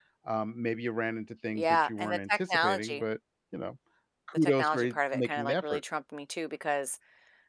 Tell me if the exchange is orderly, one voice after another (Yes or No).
No